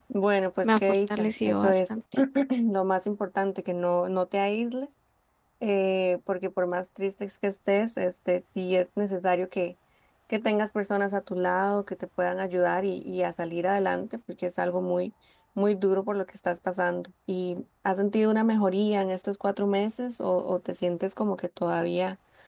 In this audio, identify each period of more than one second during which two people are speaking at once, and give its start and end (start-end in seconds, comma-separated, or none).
0.6-2.0